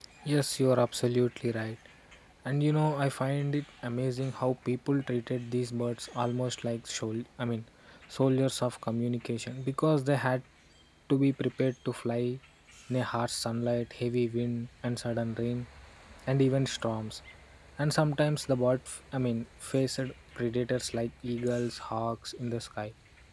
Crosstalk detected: No

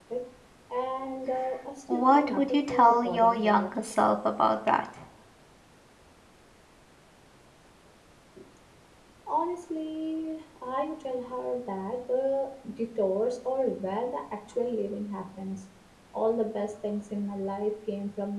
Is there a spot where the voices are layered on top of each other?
Yes, from 1.9 s

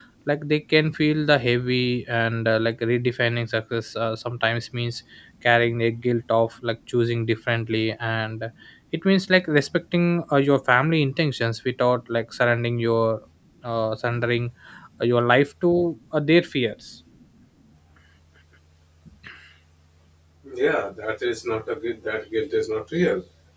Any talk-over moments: No

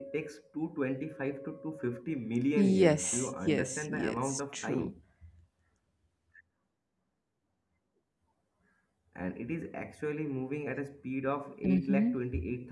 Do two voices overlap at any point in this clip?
Yes, from 2.8 s

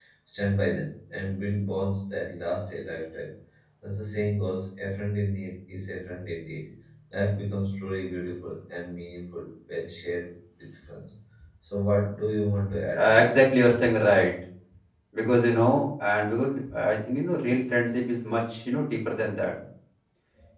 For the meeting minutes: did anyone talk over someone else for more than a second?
No

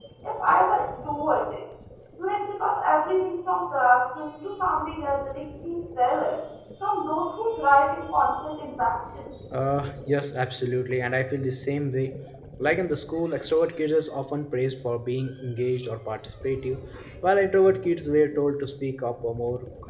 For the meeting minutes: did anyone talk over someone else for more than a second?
No

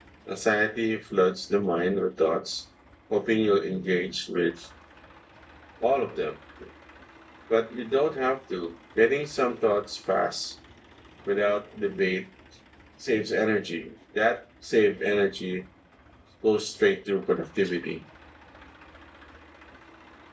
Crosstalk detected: No

